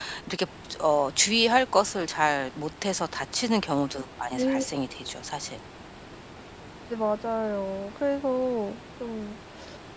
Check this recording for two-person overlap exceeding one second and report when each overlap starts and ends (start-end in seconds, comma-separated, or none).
none